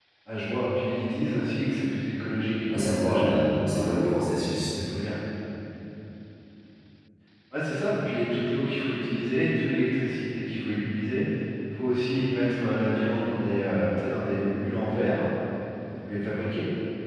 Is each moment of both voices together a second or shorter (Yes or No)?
No